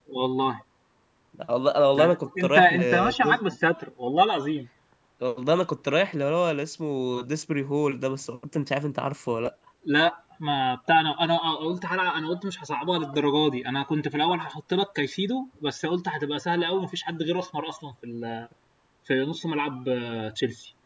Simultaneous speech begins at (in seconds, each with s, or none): 2.0 s